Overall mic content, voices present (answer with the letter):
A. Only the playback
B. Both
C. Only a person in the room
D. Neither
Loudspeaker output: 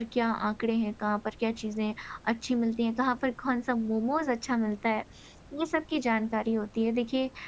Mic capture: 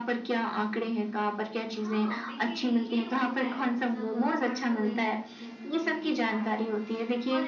B